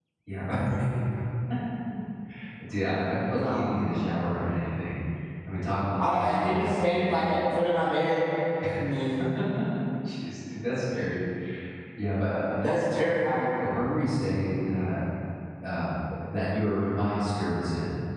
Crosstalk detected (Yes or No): Yes